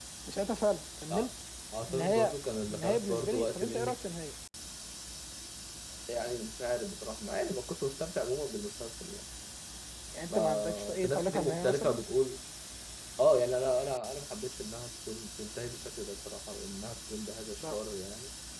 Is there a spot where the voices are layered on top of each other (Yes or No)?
Yes